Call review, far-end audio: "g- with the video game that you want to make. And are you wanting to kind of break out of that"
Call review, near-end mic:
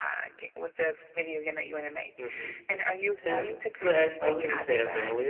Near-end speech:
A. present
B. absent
A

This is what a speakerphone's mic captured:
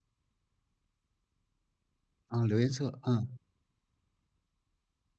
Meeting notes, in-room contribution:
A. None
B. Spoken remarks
B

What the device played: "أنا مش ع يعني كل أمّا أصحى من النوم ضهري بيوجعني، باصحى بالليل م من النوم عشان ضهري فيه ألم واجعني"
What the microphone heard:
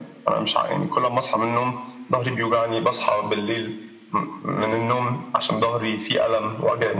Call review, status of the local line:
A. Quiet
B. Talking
A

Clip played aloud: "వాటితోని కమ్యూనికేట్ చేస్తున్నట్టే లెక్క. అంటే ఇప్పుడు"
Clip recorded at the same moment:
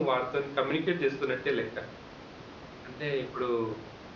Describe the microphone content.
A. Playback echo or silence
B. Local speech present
A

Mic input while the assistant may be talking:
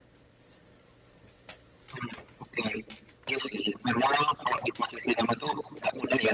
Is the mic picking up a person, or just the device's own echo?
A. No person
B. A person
A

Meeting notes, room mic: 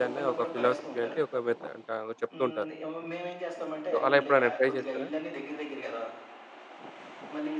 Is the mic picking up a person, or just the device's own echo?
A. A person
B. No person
A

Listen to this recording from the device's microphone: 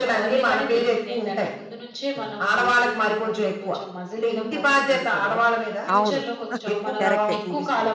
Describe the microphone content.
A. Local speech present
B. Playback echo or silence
A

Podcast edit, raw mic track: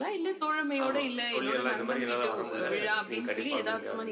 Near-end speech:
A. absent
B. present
B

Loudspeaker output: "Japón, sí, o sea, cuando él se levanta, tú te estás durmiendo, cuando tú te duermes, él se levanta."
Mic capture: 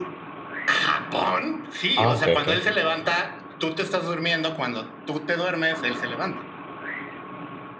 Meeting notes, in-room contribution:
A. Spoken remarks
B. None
A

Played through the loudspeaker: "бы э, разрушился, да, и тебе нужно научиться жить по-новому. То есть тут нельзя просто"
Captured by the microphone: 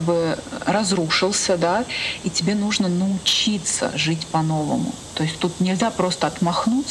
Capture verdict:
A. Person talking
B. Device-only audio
B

